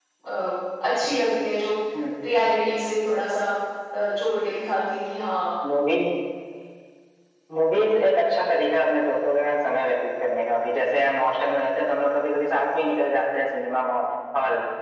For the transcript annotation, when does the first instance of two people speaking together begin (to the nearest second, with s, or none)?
none